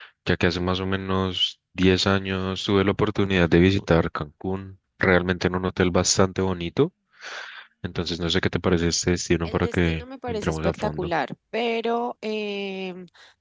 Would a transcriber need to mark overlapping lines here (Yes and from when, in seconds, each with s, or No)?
Yes, from 9.4 s